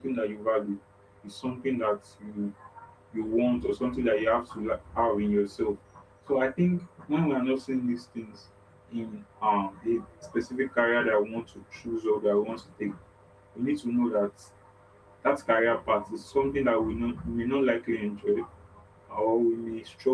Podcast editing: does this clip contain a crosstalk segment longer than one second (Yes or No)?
No